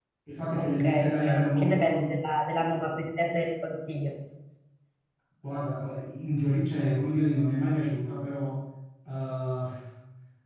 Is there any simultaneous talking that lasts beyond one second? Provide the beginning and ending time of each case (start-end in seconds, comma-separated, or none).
0.6-2.1